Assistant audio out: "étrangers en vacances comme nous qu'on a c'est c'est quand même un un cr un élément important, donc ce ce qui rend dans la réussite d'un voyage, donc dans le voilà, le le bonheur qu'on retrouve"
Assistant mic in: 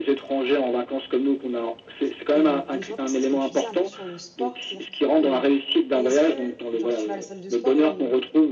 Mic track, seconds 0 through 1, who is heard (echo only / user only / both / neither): echo only